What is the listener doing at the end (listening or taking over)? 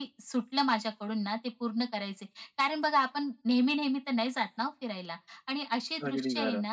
listening